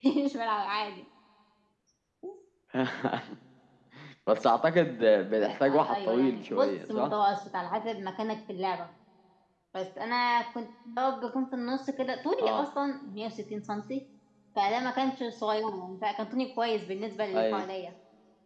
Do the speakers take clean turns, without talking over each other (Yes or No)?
No